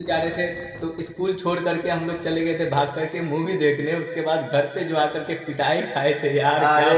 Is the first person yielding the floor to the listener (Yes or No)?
Yes